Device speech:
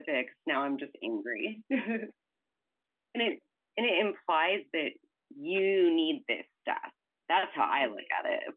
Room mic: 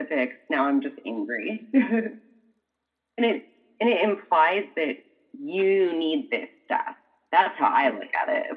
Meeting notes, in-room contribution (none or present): none